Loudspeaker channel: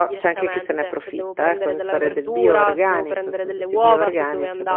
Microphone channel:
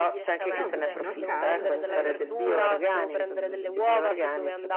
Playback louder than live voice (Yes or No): Yes